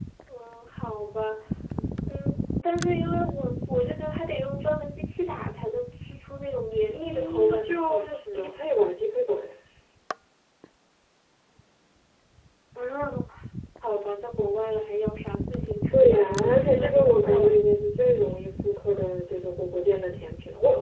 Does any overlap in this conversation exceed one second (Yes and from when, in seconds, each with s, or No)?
Yes, from 6.9 s